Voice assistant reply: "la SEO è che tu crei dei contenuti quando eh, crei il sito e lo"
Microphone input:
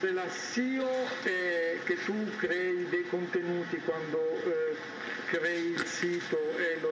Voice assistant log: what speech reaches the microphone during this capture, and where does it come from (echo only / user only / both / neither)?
echo only